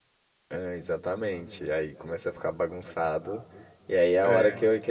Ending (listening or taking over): listening